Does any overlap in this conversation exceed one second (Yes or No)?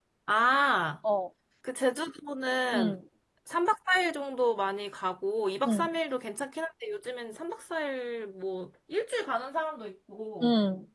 No